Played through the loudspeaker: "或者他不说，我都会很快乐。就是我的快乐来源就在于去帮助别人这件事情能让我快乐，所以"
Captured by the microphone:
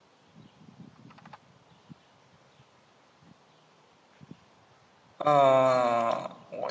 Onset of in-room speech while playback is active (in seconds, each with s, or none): 5.2 s